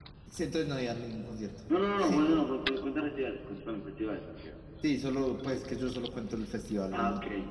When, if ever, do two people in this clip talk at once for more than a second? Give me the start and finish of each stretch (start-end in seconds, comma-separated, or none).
none